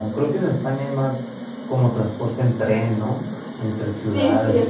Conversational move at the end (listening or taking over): taking over